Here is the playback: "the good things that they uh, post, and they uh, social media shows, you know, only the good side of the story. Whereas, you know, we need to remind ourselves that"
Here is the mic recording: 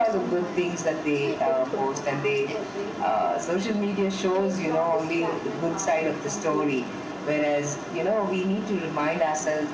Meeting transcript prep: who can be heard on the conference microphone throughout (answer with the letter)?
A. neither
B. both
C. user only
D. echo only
B